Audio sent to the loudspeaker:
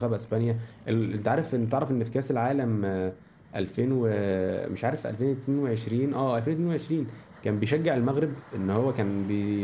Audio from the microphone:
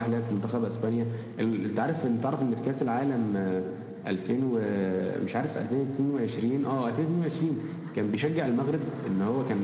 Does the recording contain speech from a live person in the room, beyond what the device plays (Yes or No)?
No